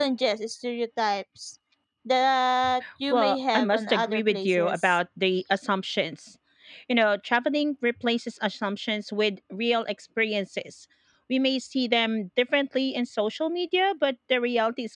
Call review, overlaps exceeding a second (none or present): present